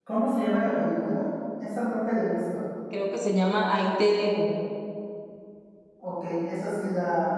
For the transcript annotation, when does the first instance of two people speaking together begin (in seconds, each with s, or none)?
none